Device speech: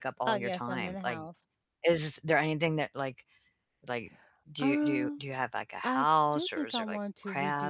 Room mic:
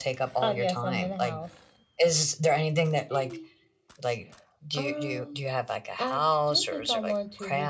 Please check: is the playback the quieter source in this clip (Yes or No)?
No